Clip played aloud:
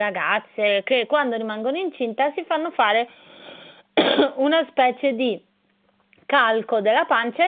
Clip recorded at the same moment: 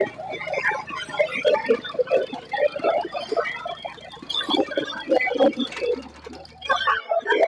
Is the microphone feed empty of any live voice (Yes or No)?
Yes